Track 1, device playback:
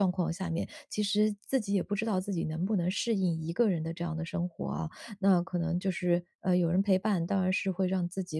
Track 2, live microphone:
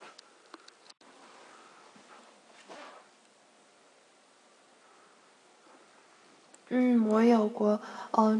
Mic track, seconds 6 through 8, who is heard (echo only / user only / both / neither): user only